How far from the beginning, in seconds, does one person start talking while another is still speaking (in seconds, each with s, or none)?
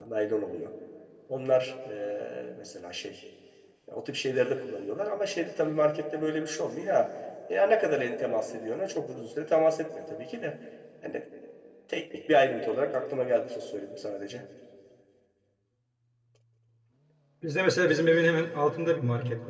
none